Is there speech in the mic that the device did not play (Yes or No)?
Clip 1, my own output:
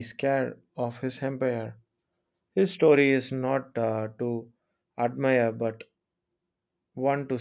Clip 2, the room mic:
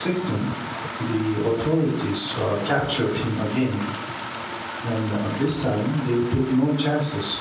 Yes